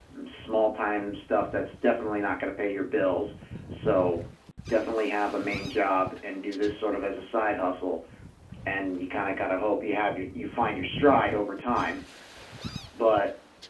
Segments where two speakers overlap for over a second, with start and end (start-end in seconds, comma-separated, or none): none